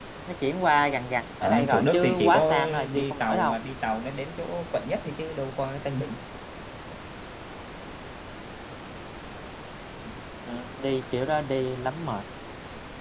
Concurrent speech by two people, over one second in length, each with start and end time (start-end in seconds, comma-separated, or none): 1.4-3.6